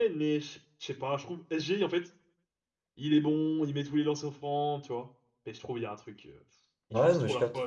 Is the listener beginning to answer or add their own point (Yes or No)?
Yes